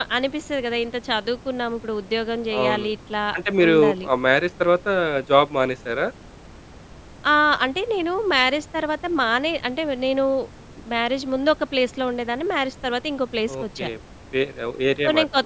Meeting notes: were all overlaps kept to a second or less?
Yes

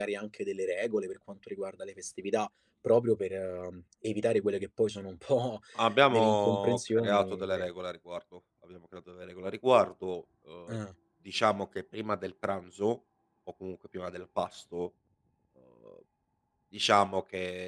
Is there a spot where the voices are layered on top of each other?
Yes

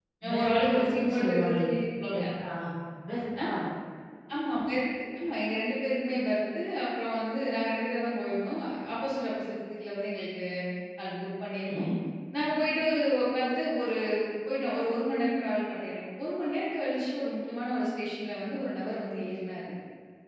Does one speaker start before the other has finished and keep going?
Yes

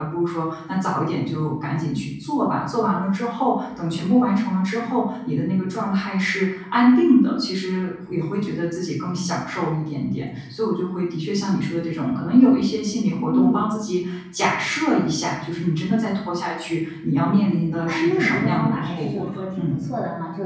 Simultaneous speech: Yes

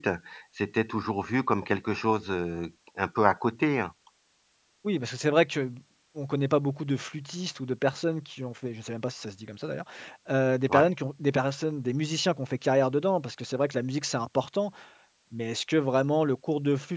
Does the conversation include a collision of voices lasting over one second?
No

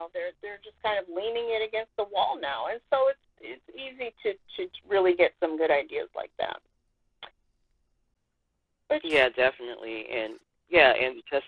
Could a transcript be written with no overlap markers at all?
Yes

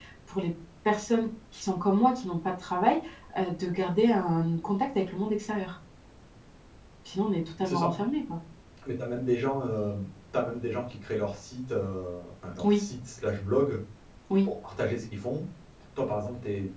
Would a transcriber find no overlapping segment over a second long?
Yes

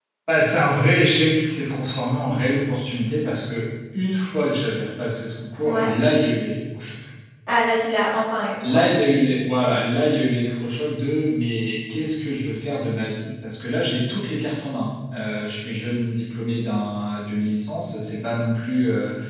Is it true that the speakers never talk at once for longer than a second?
Yes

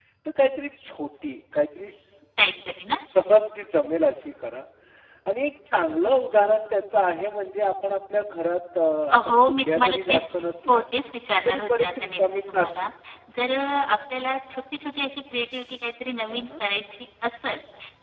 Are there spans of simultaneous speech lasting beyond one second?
Yes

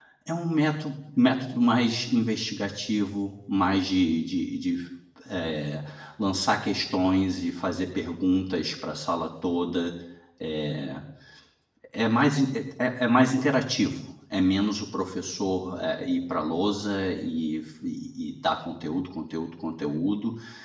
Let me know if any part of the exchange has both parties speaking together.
No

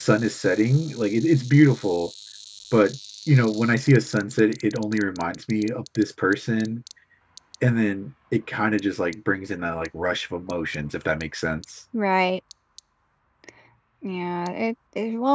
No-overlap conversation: Yes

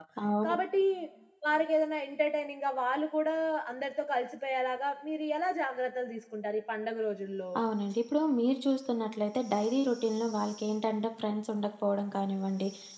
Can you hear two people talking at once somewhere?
No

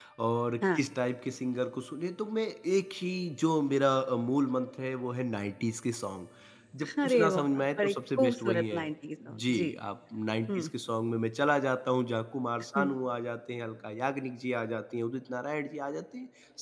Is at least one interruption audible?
Yes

